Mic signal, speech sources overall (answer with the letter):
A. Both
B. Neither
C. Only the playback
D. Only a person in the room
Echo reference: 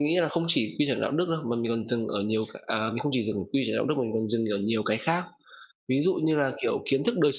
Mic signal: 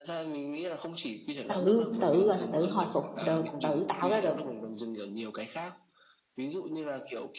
A